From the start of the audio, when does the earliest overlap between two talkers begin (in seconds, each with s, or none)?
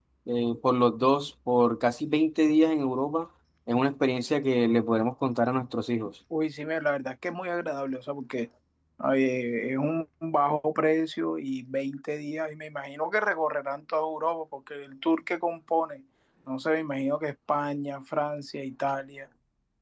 none